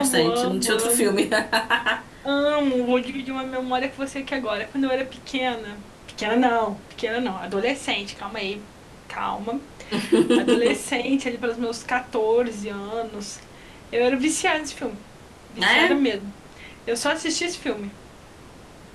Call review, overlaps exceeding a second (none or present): present